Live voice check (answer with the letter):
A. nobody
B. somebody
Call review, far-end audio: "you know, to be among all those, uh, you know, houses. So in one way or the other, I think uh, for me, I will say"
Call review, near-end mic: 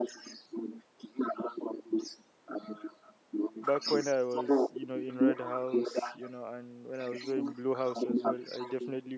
B